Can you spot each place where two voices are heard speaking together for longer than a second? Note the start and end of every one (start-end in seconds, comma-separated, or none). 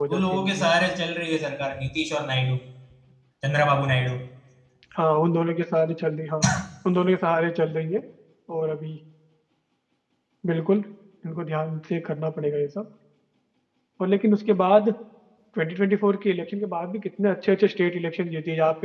none